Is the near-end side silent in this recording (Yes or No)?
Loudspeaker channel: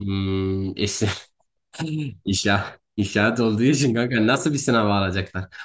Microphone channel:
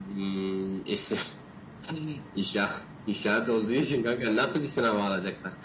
Yes